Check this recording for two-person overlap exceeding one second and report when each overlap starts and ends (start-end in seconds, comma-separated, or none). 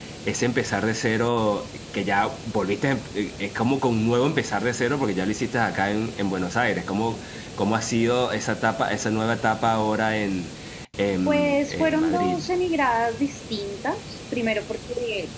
11.3-12.5